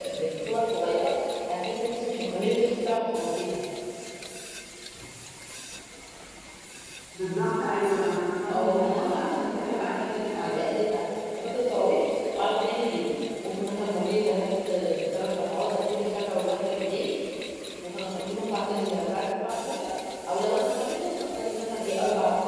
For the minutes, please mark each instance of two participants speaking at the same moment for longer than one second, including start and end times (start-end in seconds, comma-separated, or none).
8.5-10.6